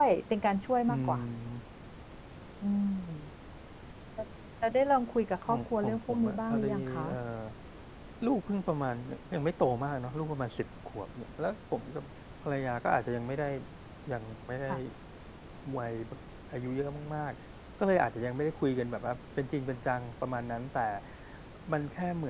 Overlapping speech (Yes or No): Yes